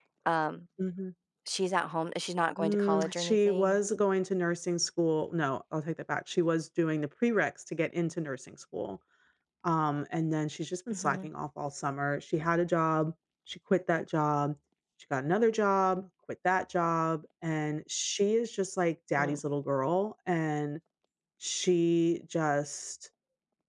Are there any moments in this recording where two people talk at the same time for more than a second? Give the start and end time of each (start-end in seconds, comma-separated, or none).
2.6-3.8